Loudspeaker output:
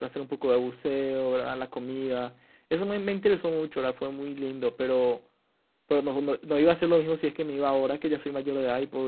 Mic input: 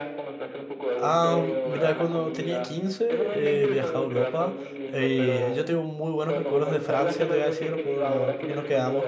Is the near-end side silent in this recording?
No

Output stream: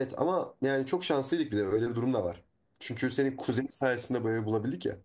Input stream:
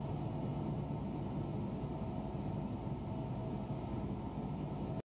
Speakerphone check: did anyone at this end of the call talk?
No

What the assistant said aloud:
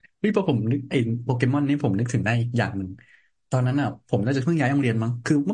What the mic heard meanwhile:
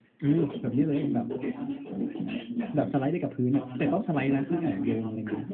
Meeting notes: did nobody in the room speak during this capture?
No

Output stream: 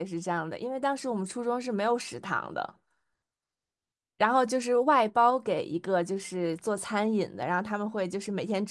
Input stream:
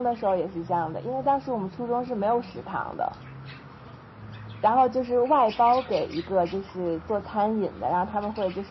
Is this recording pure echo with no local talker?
Yes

